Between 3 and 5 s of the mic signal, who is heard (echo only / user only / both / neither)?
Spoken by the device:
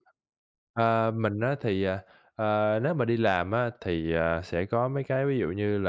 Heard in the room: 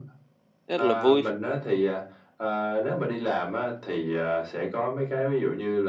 echo only